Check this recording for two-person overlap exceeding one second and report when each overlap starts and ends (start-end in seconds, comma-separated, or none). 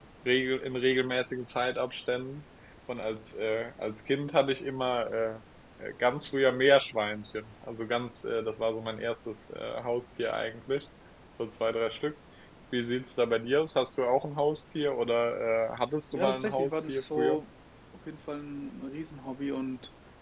16.1-17.4